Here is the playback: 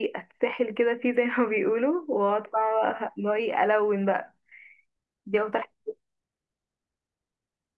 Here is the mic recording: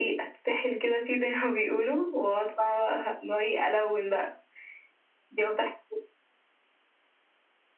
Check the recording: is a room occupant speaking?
No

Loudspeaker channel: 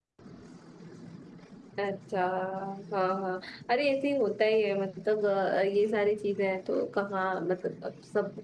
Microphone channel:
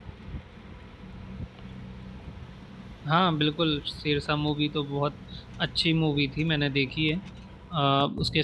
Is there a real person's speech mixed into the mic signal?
Yes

